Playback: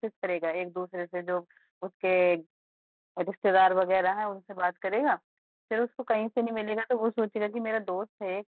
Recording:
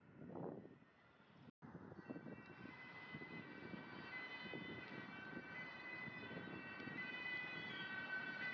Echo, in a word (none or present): none